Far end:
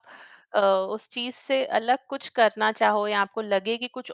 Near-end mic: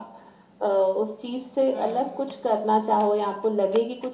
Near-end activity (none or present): present